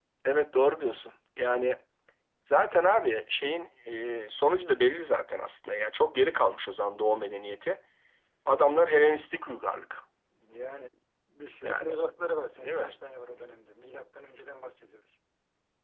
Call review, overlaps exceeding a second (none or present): none